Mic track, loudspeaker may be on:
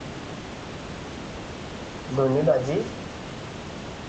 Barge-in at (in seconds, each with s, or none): 2.2 s